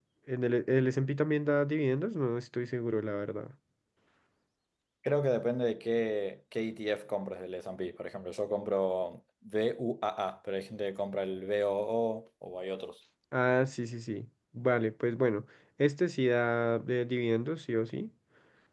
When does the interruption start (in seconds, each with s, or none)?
none